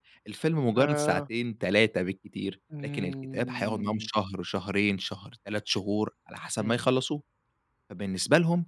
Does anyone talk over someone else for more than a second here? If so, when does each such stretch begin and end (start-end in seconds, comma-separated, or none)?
2.8-4.1